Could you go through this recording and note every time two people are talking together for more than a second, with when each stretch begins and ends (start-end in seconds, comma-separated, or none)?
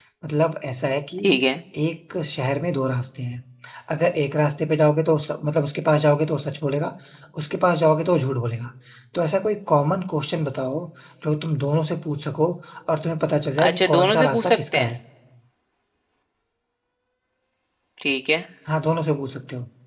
13.7-14.9